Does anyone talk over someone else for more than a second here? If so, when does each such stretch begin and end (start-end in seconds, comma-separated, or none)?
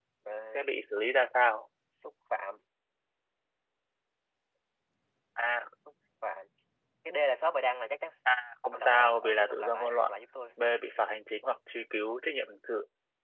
8.7-10.1